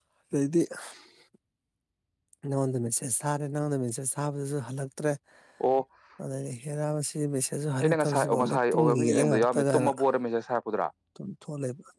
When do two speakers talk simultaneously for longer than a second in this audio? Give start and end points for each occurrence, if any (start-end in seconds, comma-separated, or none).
7.8-9.9